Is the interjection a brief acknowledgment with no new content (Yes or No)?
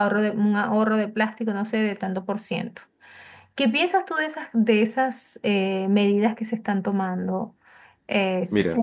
No